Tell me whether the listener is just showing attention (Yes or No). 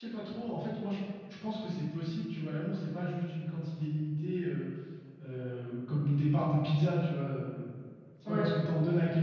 Yes